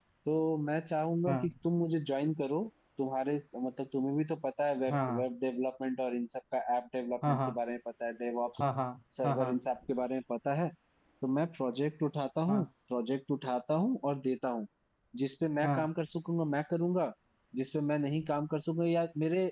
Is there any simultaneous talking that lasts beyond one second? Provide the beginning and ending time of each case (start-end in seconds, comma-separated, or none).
none